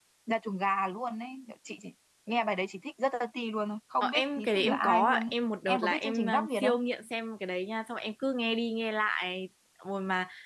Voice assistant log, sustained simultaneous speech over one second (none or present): present